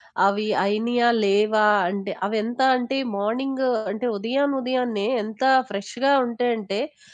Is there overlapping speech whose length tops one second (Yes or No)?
No